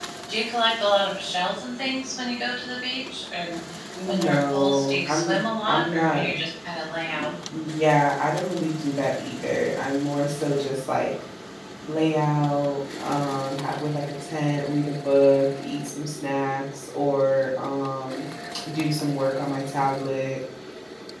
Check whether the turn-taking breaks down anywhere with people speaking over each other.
Yes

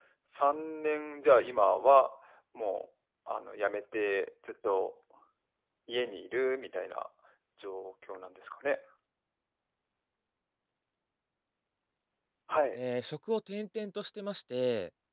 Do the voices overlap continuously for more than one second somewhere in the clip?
No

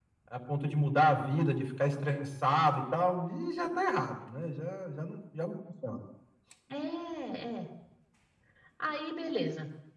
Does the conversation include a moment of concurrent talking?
No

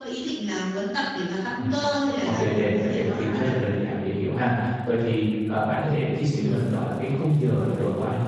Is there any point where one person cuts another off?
Yes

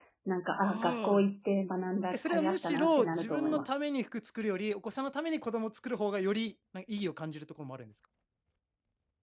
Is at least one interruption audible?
Yes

